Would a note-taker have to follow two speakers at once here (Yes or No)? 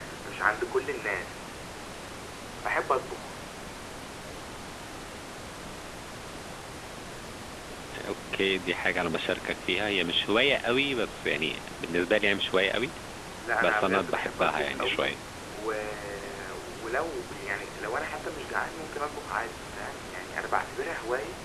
Yes